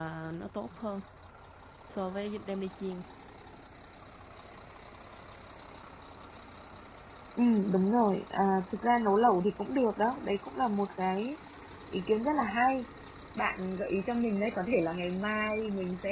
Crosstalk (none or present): none